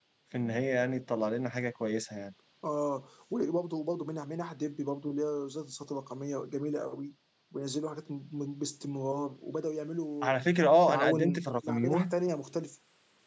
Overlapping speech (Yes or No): Yes